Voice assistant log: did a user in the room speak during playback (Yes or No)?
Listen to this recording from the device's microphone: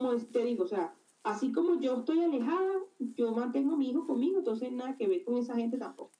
No